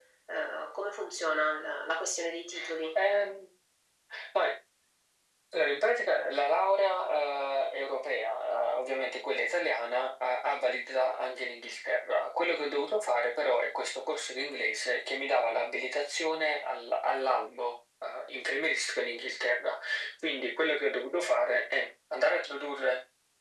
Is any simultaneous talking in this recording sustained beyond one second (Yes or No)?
No